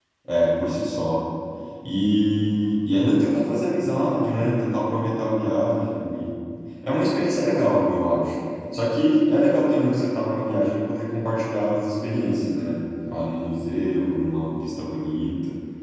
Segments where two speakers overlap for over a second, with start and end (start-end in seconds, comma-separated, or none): none